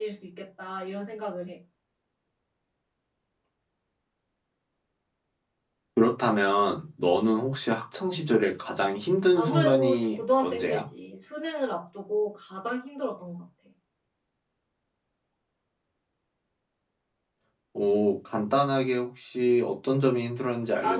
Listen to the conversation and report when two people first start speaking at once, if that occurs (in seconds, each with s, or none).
9.3 s